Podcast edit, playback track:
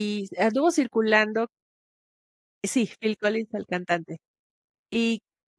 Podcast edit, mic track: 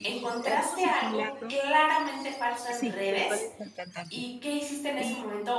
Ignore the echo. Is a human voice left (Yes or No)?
Yes